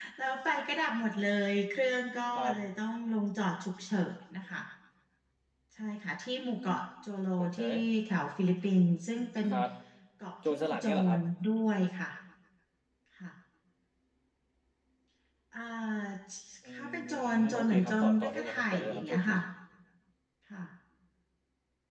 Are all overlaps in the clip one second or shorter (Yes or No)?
No